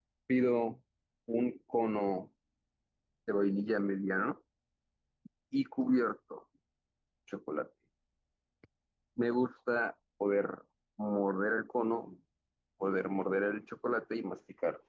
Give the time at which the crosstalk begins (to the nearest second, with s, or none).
none